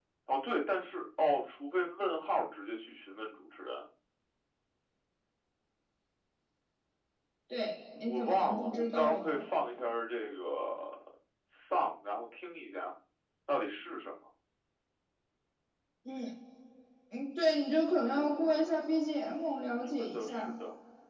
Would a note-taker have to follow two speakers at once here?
Yes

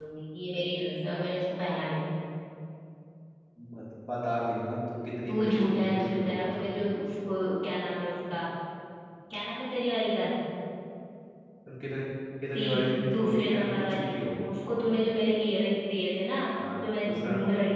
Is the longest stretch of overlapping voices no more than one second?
No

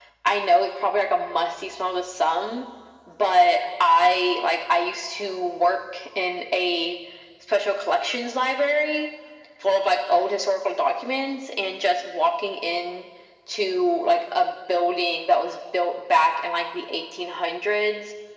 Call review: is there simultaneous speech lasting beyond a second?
No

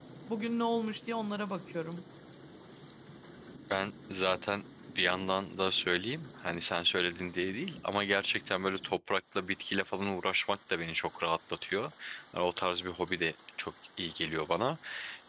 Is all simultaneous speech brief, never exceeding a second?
Yes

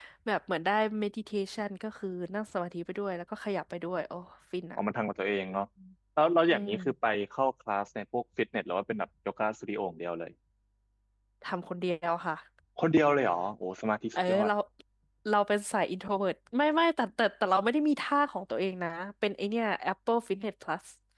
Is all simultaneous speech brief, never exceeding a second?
Yes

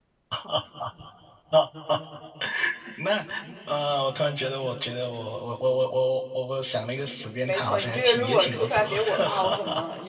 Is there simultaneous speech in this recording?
Yes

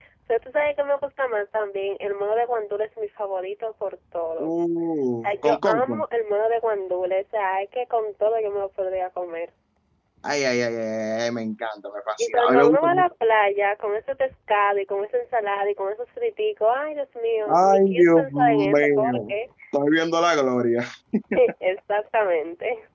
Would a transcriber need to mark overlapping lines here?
Yes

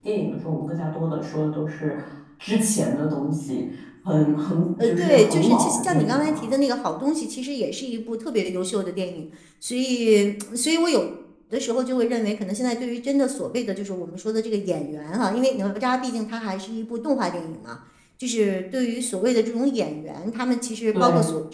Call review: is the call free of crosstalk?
No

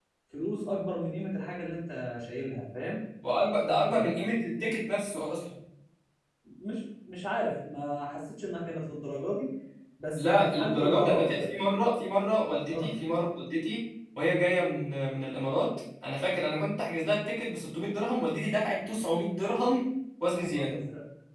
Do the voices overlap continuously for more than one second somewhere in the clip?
Yes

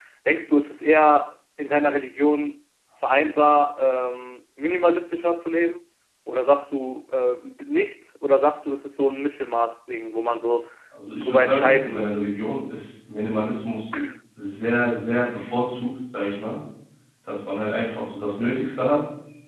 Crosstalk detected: Yes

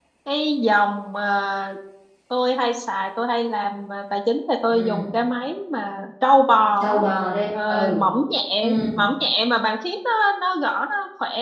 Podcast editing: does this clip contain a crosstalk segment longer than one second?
No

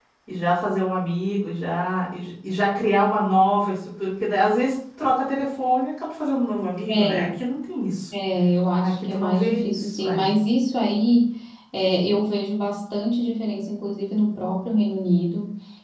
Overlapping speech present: Yes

